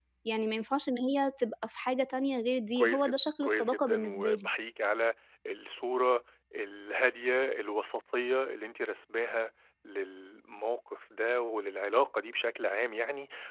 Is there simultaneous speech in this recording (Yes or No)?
Yes